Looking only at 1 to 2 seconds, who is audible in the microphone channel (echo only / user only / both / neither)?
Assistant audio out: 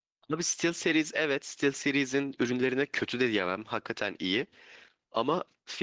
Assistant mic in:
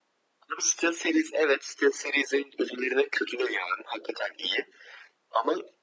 echo only